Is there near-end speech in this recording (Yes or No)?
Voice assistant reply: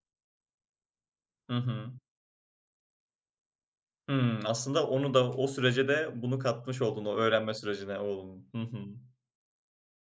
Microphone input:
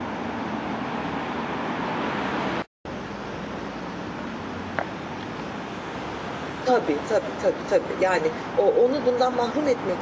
Yes